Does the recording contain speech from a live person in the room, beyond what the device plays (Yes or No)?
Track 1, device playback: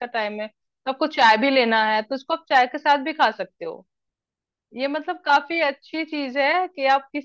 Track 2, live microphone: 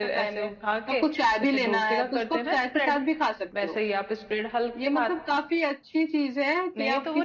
Yes